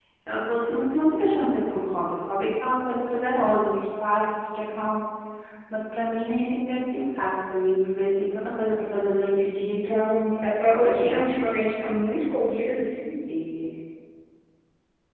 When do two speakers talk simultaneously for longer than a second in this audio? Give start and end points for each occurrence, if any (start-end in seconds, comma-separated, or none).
9.7-11.2